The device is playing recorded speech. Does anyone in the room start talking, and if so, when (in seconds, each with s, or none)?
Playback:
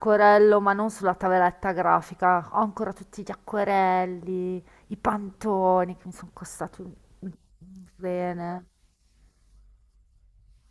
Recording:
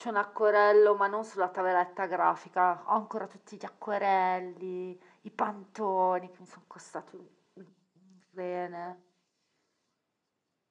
none